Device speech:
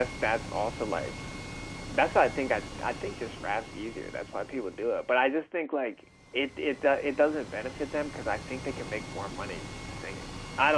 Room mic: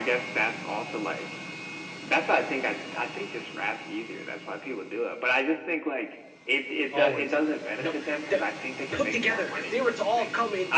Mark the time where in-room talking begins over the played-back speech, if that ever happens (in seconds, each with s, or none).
6.9 s